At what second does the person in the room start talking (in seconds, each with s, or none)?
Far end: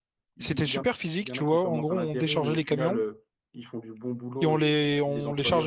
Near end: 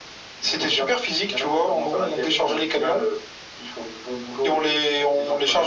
none